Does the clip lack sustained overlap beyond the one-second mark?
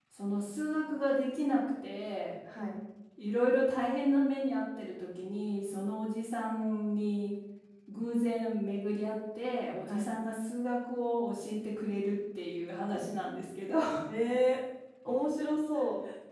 Yes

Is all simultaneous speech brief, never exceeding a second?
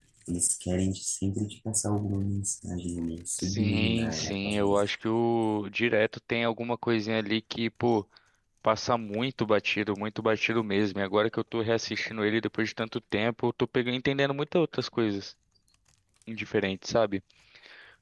No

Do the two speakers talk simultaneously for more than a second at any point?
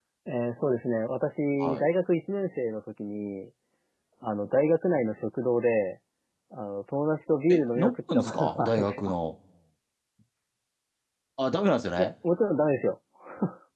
Yes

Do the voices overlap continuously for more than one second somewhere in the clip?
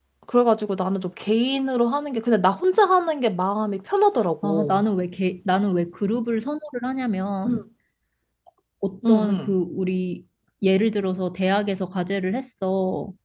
No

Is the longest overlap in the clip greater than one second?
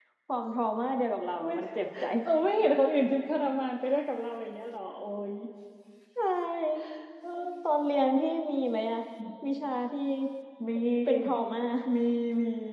No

